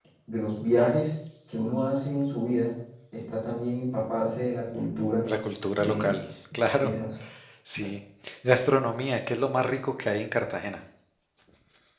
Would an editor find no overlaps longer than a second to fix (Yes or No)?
Yes